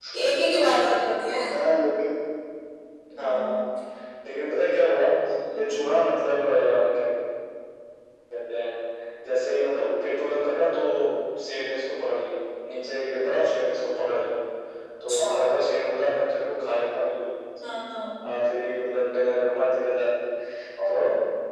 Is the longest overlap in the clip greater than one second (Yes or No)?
No